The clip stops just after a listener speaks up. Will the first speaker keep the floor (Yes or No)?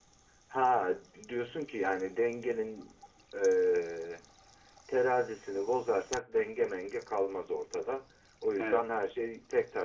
Yes